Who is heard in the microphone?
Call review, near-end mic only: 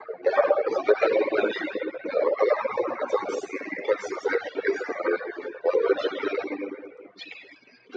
echo only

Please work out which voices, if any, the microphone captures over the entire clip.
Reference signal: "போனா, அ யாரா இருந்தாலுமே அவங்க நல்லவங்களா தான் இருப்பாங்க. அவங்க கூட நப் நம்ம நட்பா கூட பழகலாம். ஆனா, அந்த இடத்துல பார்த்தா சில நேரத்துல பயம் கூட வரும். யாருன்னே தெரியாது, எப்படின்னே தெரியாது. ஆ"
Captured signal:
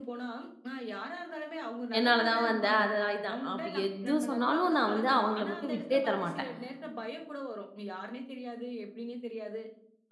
both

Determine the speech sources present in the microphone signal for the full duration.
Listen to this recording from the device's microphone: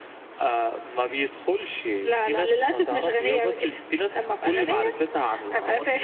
echo only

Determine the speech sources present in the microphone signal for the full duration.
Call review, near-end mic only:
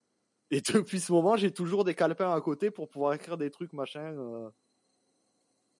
user only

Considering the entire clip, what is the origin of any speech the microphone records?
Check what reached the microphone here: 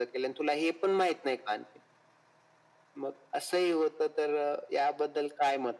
echo only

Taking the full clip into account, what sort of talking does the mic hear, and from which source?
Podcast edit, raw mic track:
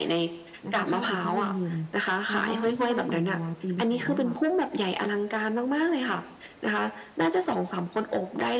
both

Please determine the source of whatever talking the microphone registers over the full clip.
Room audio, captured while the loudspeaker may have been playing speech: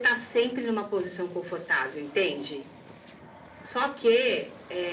echo only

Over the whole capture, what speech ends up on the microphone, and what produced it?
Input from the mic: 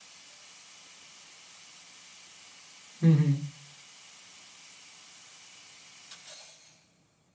user only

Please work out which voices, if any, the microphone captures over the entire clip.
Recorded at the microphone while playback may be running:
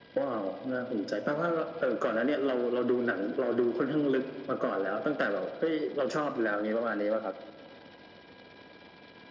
echo only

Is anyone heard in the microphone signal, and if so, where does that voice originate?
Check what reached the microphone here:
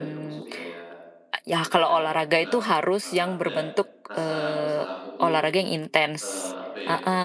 both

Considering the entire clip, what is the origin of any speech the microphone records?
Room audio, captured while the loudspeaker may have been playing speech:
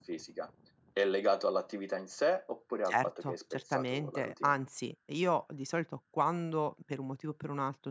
both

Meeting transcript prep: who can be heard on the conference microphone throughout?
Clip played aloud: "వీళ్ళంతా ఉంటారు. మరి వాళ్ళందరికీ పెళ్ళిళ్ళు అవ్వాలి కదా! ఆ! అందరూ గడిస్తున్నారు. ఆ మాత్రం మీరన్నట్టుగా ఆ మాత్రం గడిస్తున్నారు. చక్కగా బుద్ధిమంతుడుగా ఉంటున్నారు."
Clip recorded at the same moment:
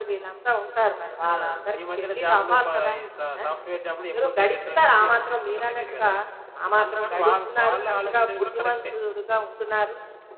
both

